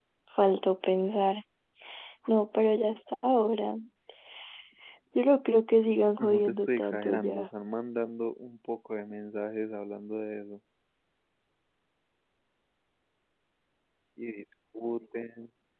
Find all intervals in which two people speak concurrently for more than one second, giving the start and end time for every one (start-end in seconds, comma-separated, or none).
6.2-7.5